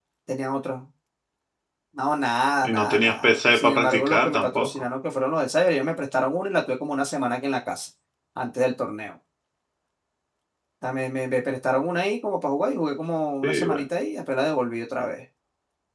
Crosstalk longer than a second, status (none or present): present